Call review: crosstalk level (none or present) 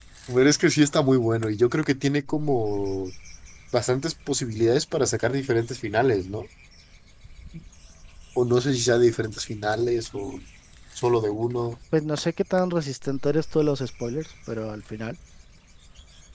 none